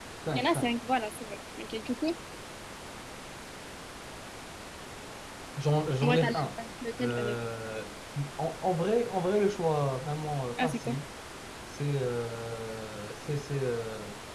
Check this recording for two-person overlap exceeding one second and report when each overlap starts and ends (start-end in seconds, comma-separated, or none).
none